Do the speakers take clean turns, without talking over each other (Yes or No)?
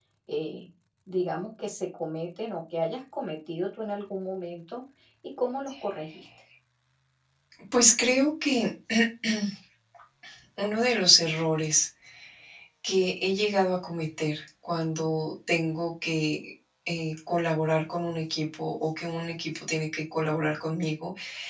Yes